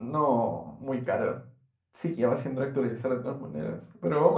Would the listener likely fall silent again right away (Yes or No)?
Yes